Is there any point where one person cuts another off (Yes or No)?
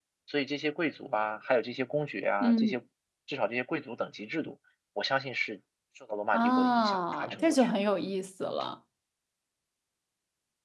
Yes